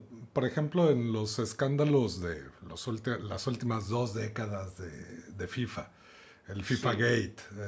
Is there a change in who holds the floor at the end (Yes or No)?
No